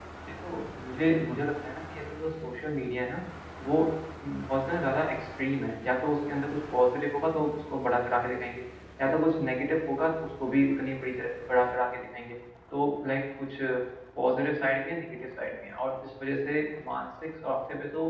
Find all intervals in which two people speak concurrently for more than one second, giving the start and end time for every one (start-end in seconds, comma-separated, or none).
none